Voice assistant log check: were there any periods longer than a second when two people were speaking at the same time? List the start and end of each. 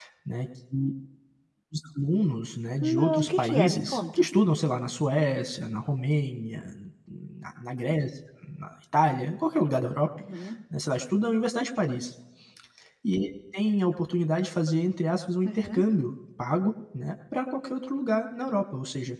3.0-4.2

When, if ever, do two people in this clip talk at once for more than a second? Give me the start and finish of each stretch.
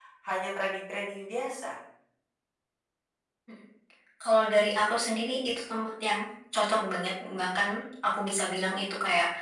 none

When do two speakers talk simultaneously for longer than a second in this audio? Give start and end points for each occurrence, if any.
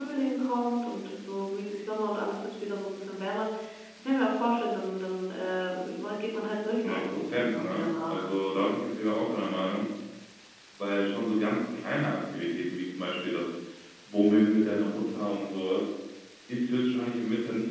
6.8-8.2

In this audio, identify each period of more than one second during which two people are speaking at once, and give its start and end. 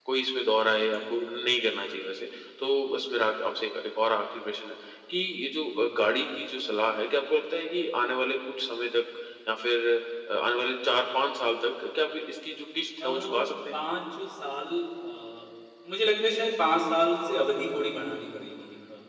none

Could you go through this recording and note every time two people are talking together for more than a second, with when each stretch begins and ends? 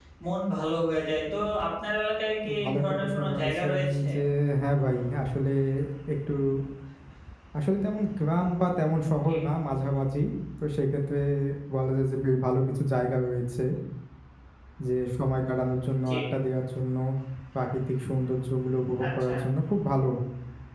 2.5-4.1

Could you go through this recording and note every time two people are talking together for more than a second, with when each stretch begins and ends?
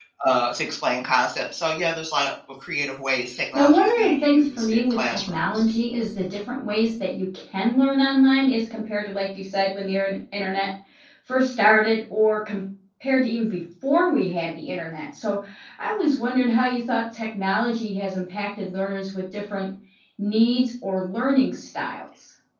3.5-5.4

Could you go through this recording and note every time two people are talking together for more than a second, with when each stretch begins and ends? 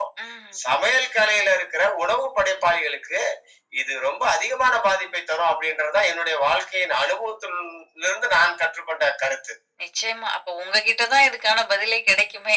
none

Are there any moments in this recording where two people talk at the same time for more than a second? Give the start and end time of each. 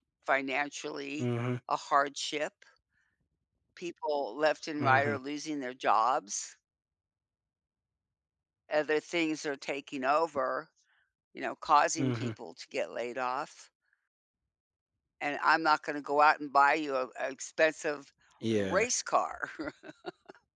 none

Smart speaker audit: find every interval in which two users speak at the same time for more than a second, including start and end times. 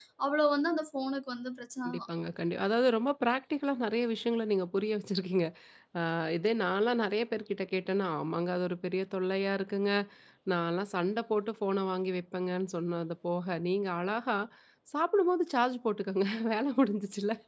none

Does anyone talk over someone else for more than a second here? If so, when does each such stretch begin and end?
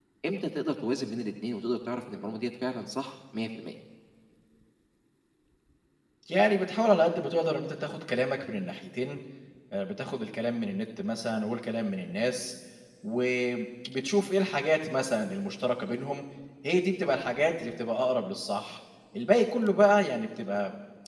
none

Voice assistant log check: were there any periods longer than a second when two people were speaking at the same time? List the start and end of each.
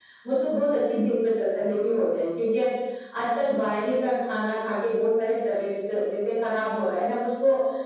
none

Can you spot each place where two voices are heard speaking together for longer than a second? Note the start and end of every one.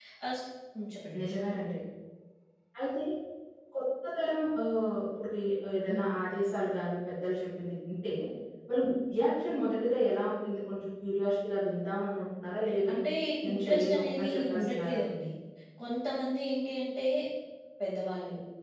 13.5-15.0

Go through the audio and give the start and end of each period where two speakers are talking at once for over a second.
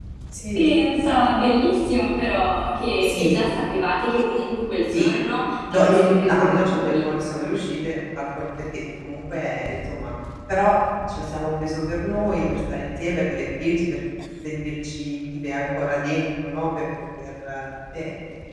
5.7-7.0

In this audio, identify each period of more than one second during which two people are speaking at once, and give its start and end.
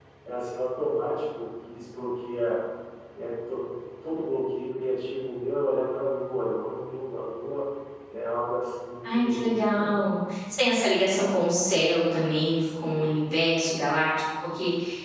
none

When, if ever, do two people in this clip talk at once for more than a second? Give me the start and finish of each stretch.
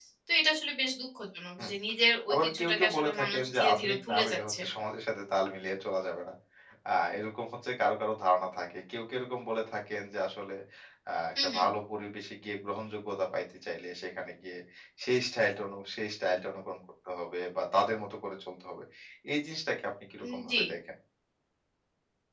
2.3-4.6

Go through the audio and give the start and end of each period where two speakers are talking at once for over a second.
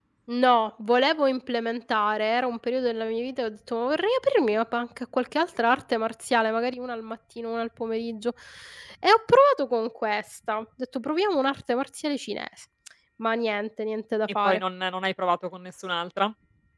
none

